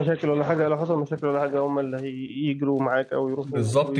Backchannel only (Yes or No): No